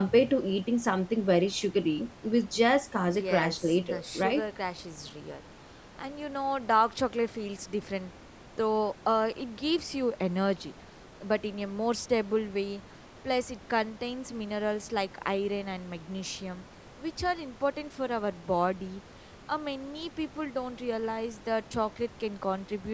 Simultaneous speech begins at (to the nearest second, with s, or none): 3 s